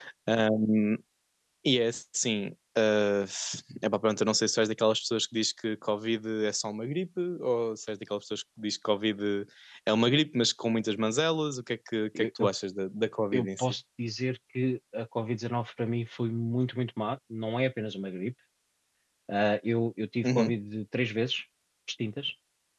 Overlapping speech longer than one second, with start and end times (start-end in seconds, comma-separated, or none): none